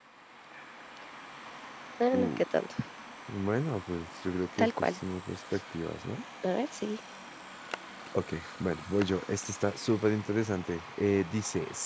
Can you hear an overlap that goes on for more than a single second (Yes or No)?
No